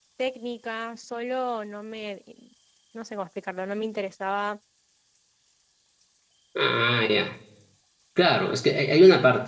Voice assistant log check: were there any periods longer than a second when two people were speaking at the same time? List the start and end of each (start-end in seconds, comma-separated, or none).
none